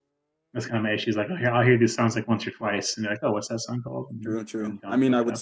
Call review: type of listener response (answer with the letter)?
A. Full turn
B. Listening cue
A